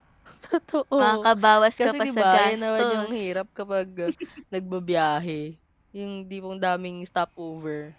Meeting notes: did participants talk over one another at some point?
Yes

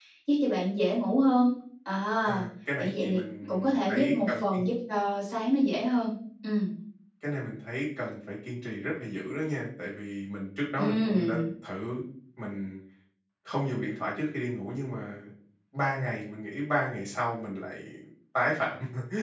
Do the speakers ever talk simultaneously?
Yes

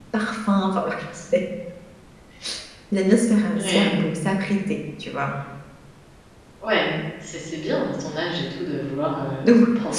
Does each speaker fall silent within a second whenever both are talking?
Yes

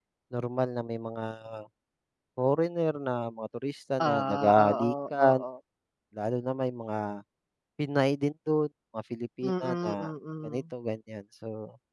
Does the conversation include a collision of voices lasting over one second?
Yes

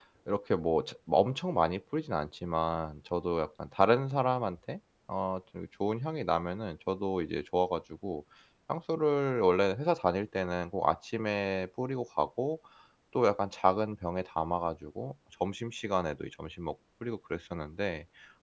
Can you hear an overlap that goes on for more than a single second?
No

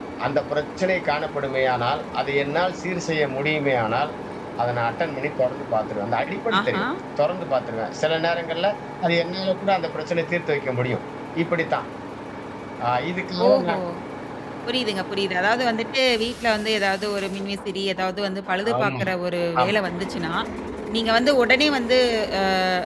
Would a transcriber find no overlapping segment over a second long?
Yes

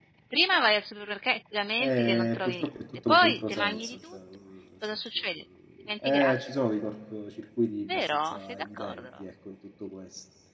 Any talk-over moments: Yes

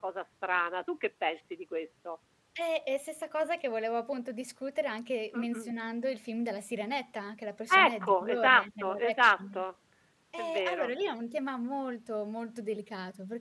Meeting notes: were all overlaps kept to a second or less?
No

